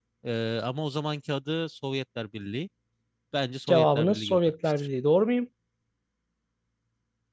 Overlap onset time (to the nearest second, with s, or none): 4 s